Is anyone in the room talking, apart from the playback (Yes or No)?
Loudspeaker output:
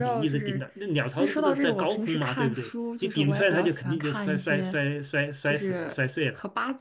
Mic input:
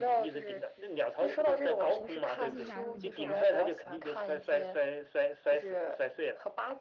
Yes